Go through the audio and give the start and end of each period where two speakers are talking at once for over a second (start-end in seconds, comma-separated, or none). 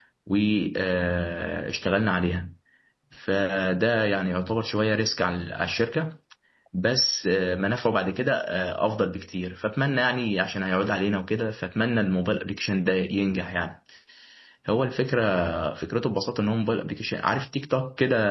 none